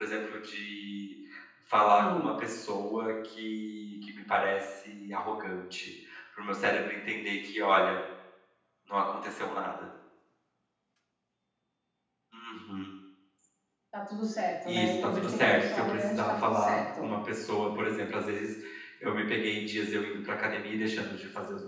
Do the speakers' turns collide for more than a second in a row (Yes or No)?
Yes